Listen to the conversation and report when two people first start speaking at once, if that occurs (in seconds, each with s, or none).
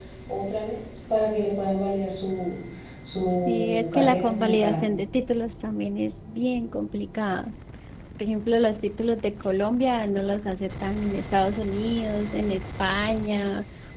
3.3 s